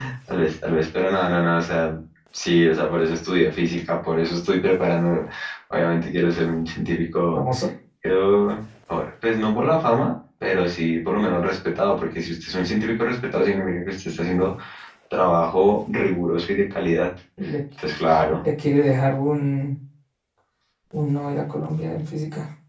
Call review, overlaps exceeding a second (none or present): none